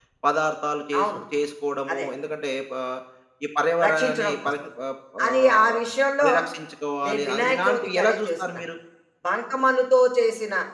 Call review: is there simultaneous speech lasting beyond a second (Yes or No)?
Yes